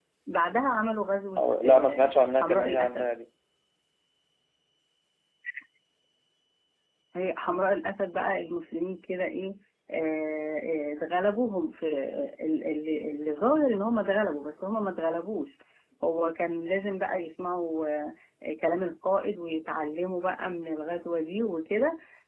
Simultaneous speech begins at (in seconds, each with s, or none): 1.4 s